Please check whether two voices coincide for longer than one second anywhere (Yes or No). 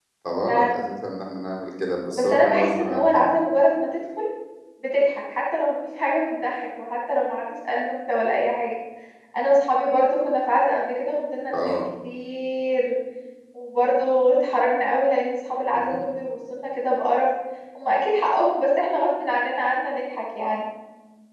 Yes